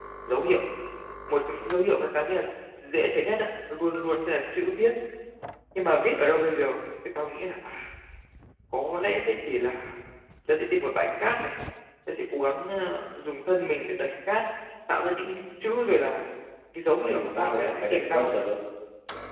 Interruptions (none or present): present